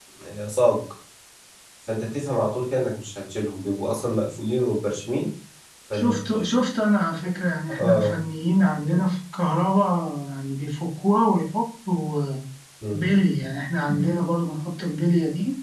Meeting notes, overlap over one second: none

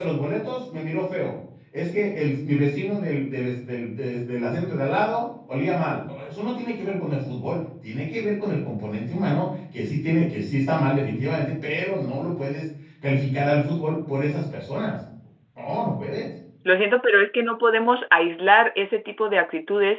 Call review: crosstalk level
none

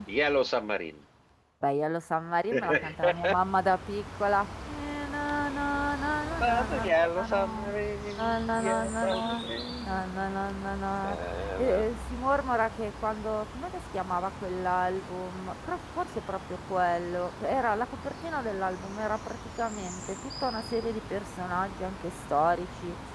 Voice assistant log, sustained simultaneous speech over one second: present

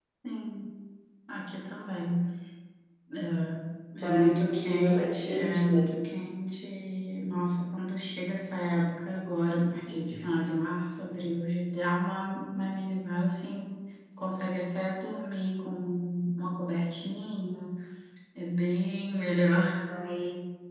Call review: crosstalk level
present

